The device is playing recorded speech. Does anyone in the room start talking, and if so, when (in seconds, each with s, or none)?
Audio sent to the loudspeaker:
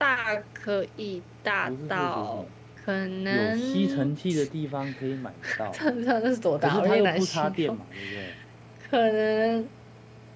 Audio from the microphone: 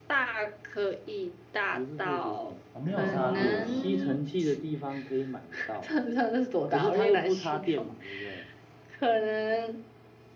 2.7 s